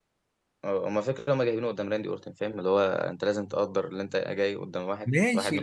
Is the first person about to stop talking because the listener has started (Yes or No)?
Yes